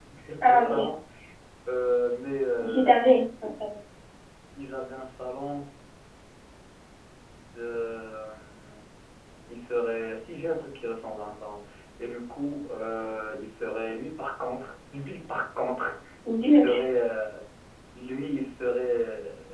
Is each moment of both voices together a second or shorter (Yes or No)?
Yes